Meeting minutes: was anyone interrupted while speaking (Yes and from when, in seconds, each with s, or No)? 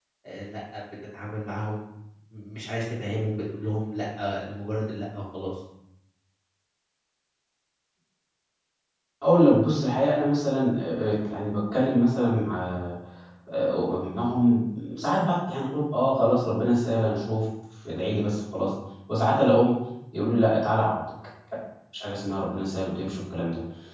No